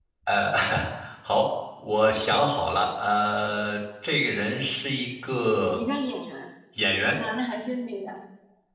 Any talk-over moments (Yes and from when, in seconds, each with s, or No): No